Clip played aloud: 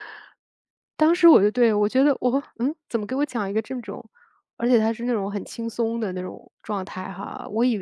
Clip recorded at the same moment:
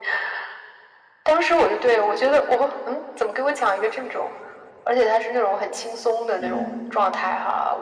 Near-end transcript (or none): 嗯，